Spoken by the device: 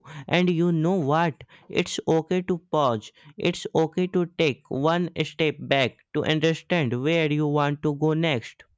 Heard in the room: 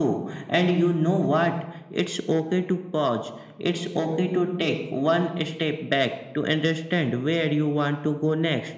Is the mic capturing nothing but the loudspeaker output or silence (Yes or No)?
Yes